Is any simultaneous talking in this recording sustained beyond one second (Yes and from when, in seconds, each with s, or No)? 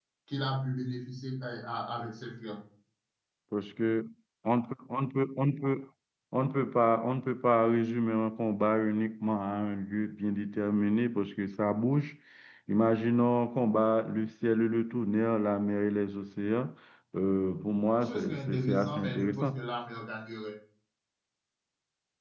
Yes, from 18.0 s